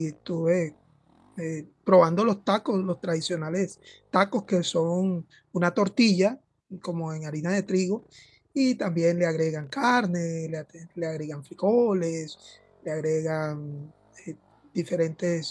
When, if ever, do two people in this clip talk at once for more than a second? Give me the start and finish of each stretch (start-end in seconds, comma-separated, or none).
none